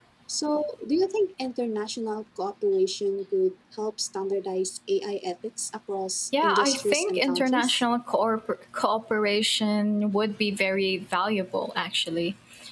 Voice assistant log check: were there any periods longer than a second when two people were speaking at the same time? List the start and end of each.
6.4-7.8

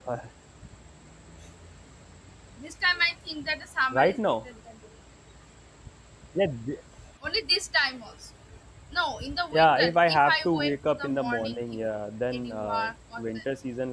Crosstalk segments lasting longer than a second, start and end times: 9.6-11.6

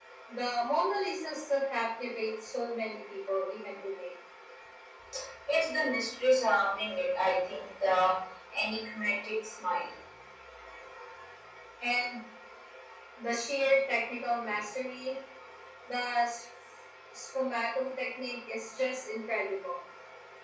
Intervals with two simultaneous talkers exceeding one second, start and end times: none

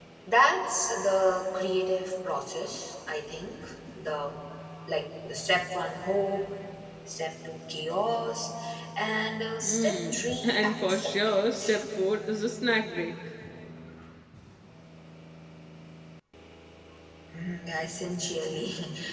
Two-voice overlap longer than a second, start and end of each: 9.6-11.8

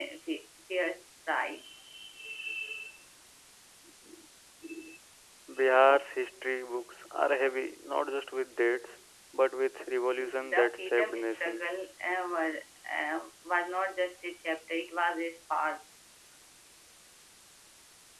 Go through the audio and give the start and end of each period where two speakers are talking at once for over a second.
10.2-11.6

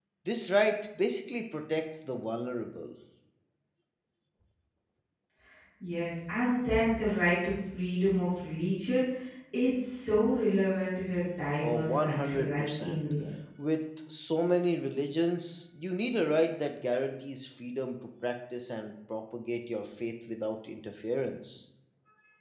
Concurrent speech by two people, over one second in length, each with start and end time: 11.6-13.0

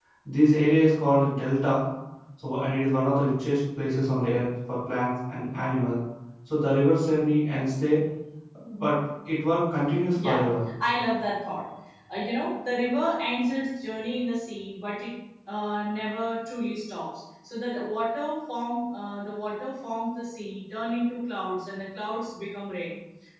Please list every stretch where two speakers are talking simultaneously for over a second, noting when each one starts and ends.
none

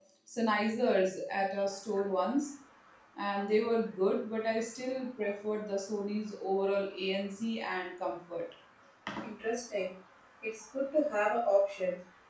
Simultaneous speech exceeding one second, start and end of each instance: none

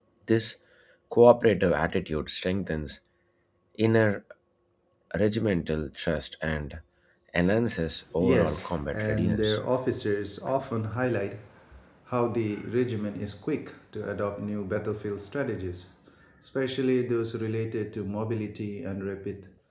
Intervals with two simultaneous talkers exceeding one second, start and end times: 8.2-9.6

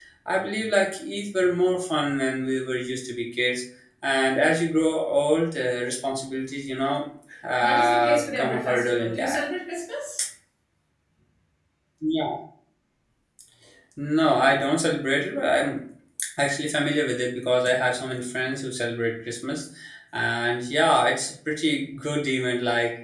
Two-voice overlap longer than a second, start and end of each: 7.6-9.4

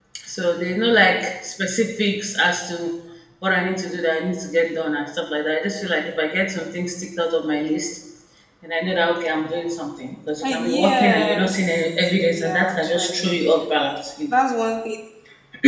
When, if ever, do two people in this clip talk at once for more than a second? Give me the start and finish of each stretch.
10.4-13.6

